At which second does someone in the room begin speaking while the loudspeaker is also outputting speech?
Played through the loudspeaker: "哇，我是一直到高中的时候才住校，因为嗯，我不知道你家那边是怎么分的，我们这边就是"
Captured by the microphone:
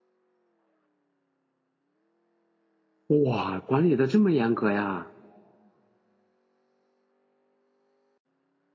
3 s

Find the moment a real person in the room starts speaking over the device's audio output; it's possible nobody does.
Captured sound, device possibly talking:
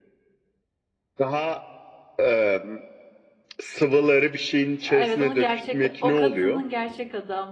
5 s

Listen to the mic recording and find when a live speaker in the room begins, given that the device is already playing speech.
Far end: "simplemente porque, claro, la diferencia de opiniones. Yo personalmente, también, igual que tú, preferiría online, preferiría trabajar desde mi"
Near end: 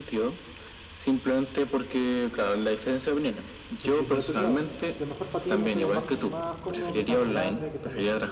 4 s

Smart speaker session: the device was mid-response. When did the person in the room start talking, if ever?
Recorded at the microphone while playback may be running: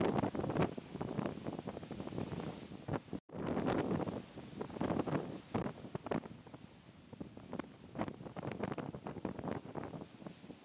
none

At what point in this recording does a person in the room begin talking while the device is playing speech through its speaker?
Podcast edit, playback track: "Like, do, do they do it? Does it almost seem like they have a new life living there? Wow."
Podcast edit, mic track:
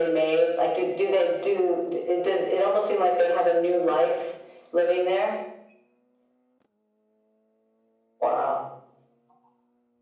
none

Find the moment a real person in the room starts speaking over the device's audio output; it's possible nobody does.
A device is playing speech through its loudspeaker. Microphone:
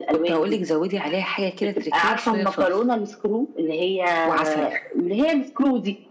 none

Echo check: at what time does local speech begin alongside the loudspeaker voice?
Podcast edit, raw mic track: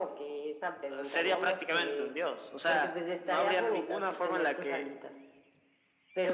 none

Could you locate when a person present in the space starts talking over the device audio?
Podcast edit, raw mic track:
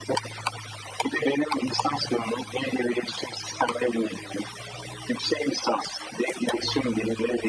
none

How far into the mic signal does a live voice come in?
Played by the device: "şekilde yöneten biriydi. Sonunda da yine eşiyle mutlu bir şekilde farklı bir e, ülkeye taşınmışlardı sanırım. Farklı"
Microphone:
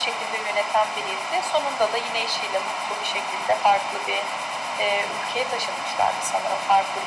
none

